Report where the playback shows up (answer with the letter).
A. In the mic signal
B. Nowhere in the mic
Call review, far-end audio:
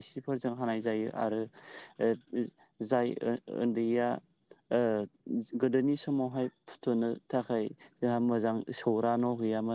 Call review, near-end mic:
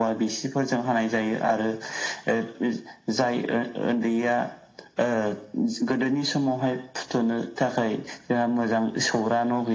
A